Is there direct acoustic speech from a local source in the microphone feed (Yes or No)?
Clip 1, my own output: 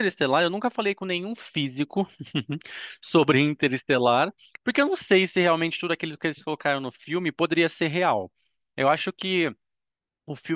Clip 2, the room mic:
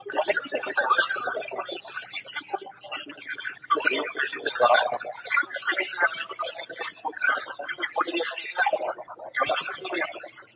No